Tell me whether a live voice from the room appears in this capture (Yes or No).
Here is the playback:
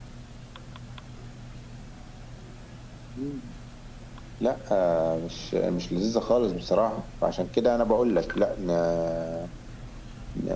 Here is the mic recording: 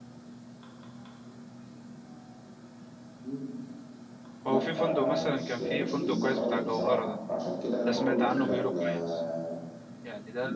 Yes